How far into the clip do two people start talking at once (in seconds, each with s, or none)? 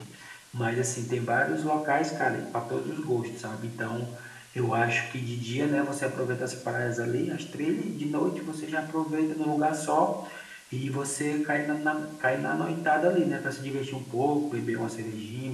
none